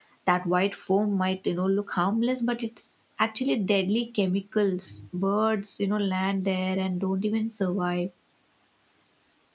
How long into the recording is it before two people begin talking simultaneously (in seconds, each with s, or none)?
none